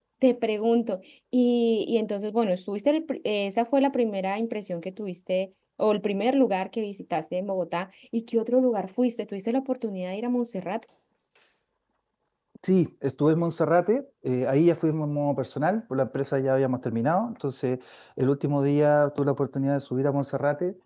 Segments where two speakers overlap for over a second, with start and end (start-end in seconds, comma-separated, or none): none